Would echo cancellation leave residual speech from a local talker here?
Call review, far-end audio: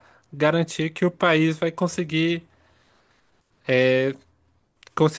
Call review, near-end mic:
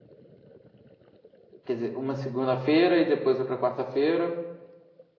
Yes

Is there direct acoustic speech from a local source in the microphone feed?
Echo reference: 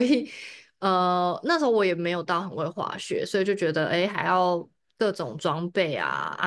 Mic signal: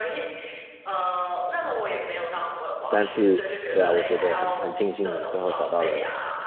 Yes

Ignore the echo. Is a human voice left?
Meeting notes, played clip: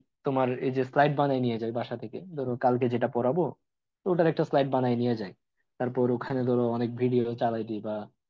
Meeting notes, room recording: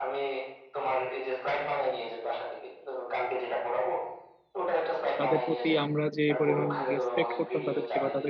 Yes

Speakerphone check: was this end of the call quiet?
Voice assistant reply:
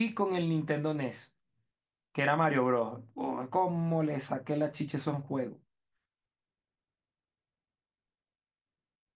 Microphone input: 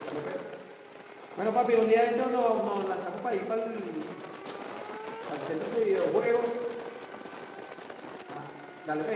No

